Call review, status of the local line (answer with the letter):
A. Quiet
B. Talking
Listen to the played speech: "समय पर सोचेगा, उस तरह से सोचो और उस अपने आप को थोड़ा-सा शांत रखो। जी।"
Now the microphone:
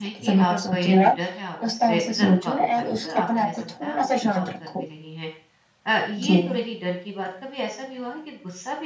B